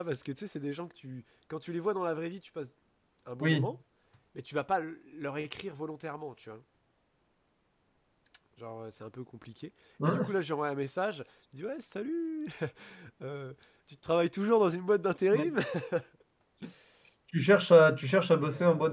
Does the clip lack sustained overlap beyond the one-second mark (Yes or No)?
Yes